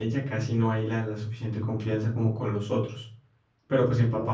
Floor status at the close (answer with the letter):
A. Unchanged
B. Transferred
A